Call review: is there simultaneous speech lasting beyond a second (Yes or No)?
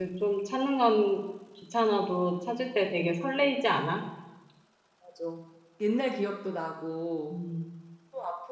No